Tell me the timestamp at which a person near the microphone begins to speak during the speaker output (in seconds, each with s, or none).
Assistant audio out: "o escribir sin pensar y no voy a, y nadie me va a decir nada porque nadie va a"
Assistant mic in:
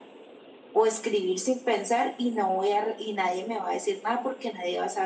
none